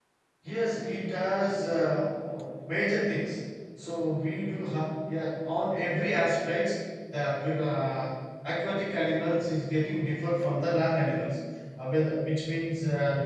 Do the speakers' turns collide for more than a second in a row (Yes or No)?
No